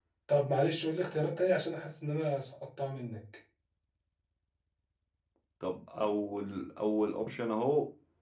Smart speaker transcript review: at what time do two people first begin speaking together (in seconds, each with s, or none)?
none